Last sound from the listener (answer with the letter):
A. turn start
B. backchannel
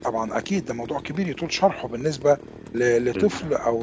B